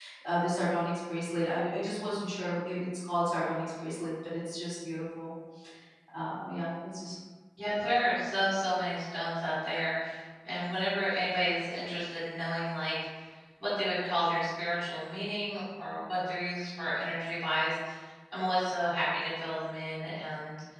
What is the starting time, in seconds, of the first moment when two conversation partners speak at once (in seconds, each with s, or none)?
none